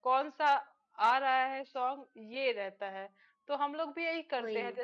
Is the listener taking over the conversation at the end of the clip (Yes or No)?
No